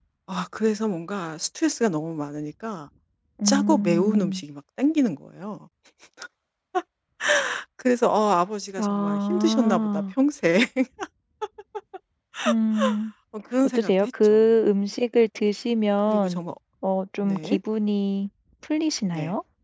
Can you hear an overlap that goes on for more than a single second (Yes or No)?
Yes